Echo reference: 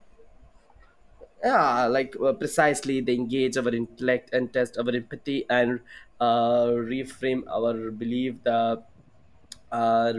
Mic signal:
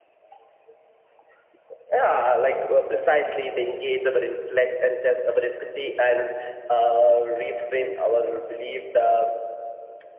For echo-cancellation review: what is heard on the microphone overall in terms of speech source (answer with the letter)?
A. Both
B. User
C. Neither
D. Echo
D